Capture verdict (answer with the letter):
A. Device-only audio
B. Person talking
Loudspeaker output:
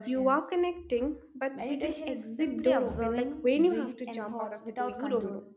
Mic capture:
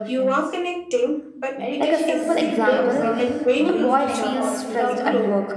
B